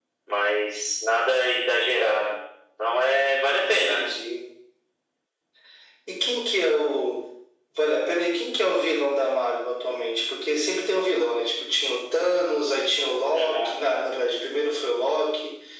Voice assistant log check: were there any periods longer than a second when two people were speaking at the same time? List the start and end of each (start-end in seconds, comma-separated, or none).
none